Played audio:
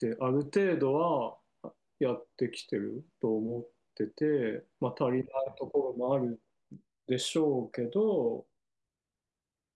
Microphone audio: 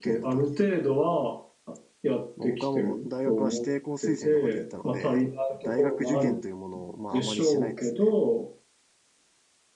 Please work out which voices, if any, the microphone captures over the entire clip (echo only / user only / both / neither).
both